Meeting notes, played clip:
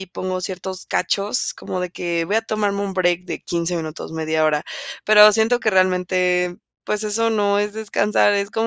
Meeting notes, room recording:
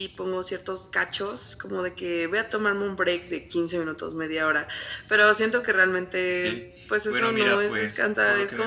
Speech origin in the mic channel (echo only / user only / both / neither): both